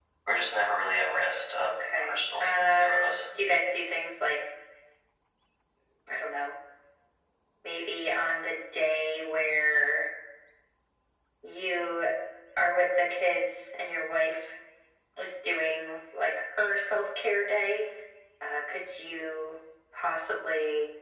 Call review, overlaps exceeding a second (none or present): present